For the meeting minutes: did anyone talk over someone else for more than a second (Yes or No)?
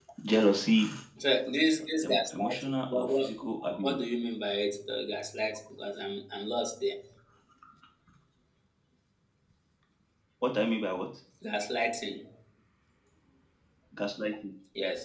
Yes